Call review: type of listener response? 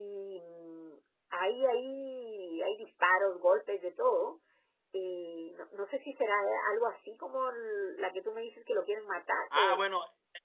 taking over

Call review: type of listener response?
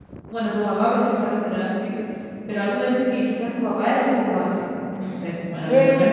taking over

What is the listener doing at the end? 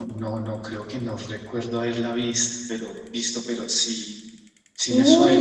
taking over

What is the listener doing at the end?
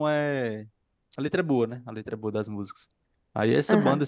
listening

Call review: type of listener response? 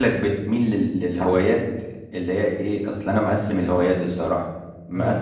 listening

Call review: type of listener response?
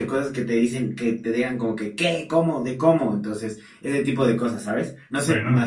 listening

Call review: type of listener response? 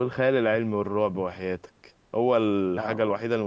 listening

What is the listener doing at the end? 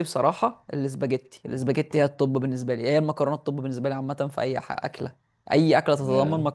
listening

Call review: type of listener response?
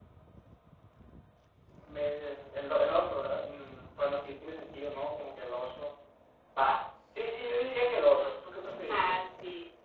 taking over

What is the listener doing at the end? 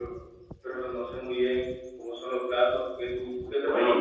taking over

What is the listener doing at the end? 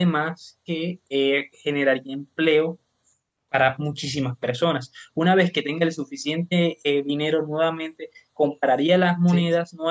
listening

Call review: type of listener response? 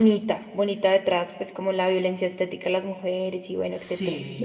taking over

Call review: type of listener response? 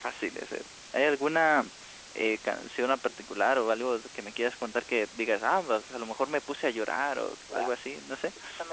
taking over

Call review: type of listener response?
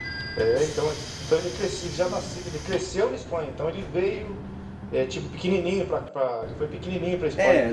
taking over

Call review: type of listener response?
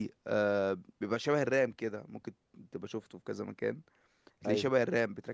listening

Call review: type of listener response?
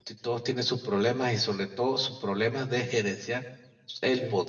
listening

